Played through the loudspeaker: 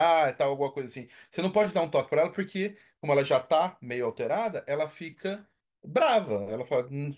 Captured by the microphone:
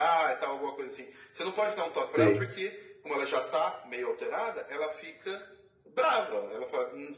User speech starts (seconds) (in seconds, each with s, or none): 2.1 s